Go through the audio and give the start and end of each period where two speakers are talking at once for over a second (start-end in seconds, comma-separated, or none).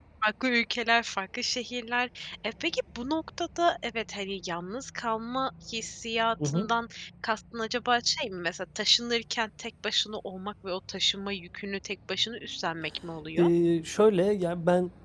none